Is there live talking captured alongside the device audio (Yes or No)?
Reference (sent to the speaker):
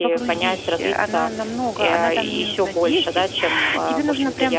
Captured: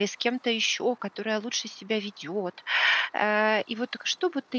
Yes